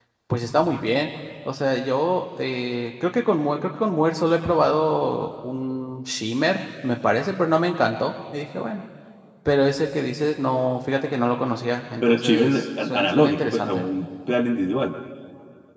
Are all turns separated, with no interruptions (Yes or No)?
No